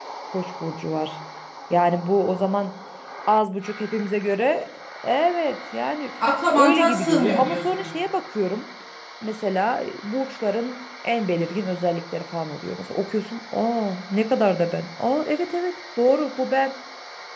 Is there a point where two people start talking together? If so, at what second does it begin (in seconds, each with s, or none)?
6.6 s